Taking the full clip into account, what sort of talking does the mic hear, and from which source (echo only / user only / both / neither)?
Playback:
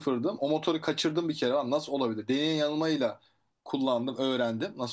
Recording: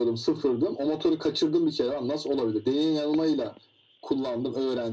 echo only